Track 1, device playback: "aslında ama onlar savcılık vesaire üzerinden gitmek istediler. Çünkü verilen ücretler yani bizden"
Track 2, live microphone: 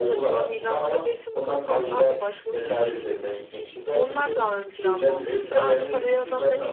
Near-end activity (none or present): present